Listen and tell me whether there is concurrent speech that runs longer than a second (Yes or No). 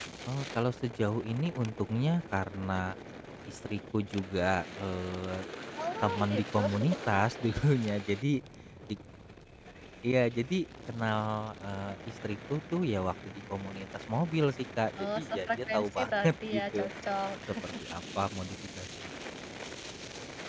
Yes